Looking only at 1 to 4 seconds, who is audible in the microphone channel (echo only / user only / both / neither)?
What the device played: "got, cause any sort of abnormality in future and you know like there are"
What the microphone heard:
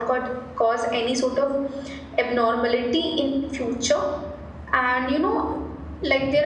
echo only